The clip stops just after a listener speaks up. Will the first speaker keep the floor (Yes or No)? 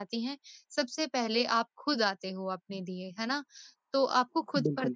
Yes